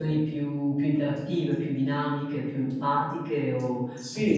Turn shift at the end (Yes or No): Yes